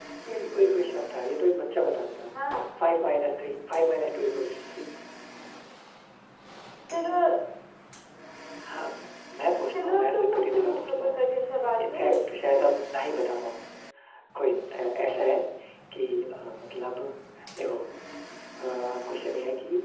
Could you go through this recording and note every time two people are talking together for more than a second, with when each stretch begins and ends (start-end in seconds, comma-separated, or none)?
9.7-11.2